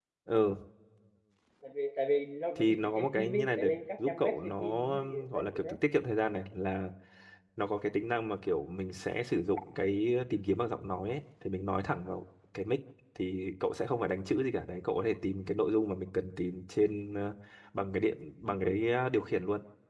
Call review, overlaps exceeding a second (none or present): present